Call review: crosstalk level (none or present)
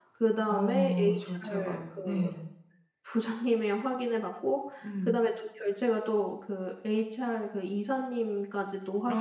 present